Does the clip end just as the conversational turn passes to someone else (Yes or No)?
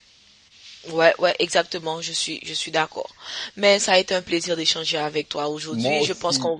No